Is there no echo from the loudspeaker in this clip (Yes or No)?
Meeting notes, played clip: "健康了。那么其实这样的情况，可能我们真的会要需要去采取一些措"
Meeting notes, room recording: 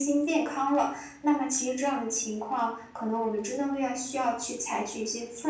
No